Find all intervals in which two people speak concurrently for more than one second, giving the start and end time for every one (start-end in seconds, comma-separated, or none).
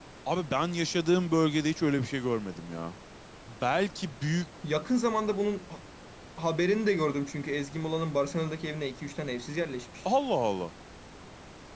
none